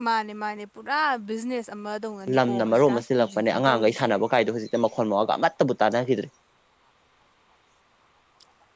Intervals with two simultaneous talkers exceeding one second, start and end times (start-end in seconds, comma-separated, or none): 2.4-4.1